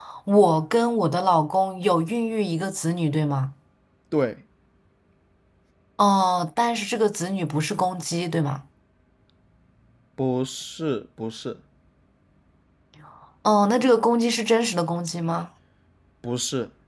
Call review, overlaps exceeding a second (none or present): none